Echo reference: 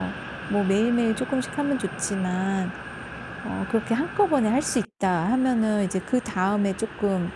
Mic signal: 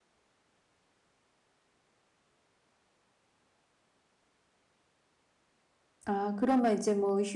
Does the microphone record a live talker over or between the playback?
Yes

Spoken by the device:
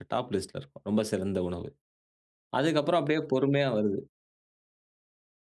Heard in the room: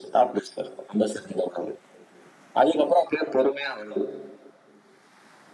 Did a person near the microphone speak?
No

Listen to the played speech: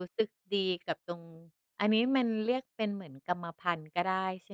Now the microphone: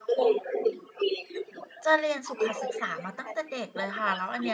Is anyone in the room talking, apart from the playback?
Yes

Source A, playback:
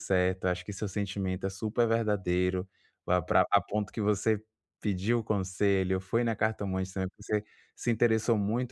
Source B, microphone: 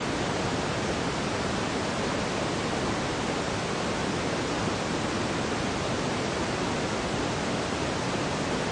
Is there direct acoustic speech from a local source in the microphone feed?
No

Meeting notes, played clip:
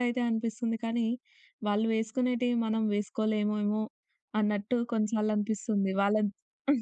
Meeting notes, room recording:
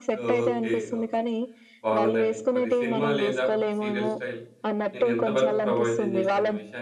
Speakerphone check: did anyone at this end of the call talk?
Yes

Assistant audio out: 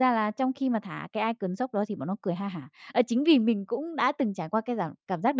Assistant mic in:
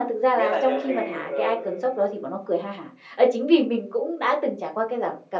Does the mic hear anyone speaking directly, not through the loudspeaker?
Yes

